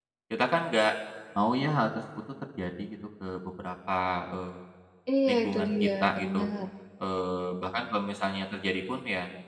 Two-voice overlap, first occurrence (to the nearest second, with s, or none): 5 s